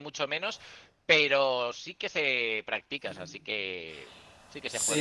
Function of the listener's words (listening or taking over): taking over